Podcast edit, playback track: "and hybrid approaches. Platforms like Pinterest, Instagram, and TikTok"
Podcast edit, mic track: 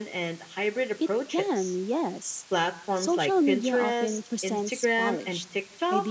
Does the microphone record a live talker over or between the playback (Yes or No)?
Yes